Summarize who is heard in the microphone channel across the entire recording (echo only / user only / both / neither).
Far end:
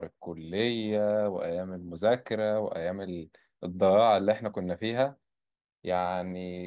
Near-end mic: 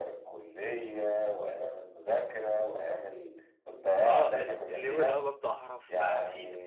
both